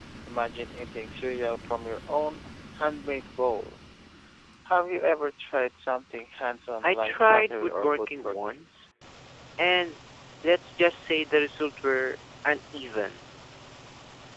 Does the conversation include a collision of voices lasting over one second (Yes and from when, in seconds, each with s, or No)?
Yes, from 6.8 s